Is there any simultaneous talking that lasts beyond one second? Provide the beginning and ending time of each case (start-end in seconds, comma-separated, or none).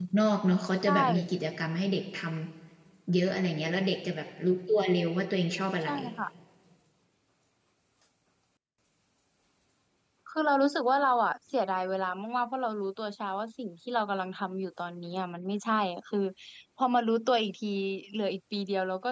none